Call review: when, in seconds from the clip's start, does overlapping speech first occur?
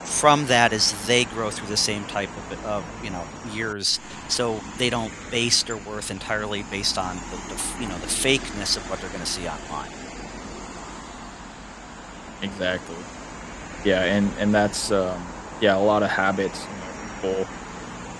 none

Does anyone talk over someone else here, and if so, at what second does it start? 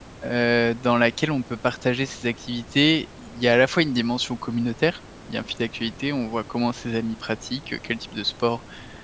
none

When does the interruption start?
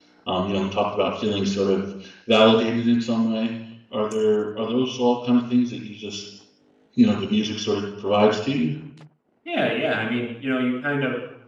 none

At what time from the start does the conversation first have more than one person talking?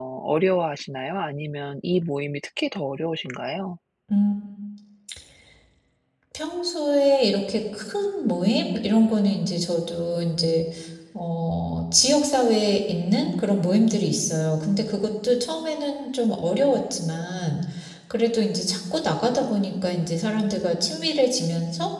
none

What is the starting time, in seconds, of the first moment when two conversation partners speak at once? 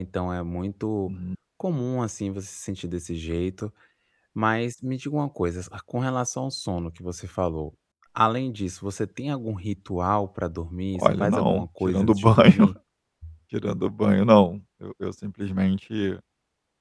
10.9 s

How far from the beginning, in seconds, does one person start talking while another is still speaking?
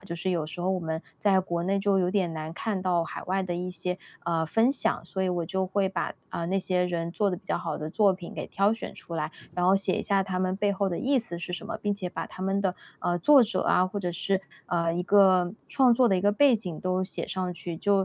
none

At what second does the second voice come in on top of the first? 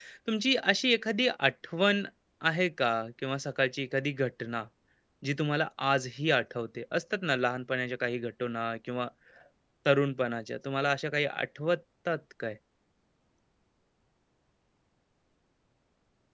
none

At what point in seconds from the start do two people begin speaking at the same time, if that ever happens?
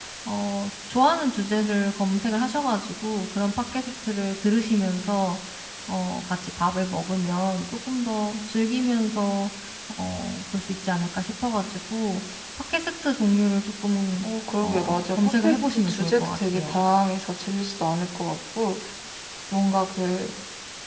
14.6 s

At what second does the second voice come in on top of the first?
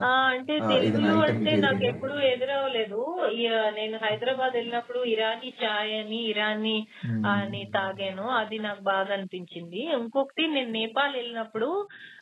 0.6 s

